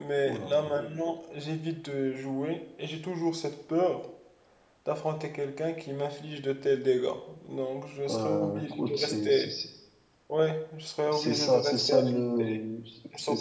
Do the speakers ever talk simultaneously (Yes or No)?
Yes